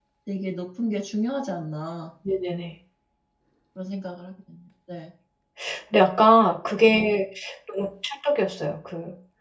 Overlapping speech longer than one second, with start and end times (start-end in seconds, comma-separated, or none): none